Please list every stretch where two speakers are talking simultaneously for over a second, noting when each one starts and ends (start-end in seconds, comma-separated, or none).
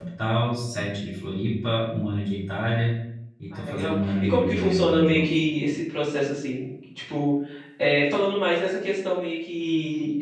3.5-5.3